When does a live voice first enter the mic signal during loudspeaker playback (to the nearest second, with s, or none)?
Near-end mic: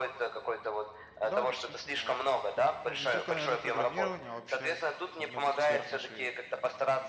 1 s